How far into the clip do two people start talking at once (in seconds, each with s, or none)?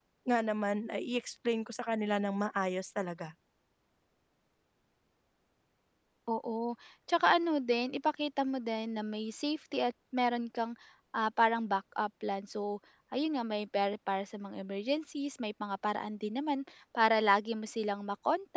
none